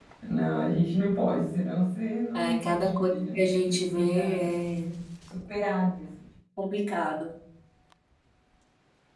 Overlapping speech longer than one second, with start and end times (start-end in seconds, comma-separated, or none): 2.3-4.5